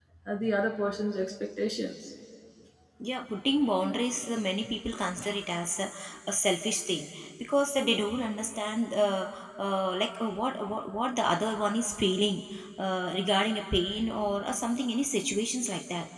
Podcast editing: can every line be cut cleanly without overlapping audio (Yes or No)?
Yes